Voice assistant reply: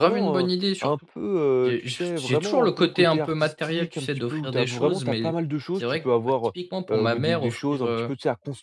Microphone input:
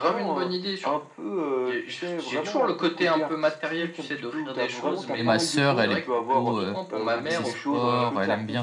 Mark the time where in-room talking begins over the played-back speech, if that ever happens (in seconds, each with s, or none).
5.1 s